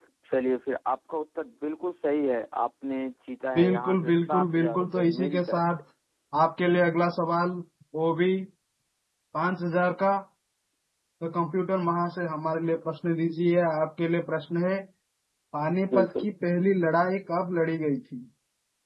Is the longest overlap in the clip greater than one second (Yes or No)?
Yes